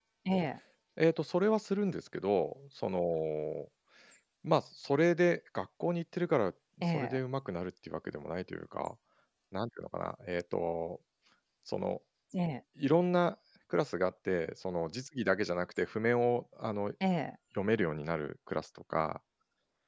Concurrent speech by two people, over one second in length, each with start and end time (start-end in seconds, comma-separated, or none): none